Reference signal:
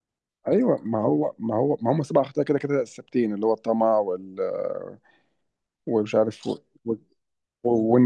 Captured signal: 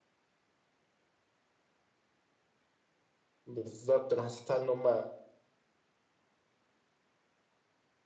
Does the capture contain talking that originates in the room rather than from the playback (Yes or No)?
Yes